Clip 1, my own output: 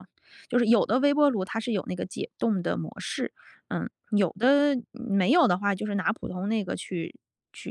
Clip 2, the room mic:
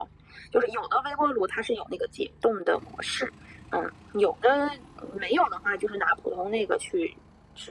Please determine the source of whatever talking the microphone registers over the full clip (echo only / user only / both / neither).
echo only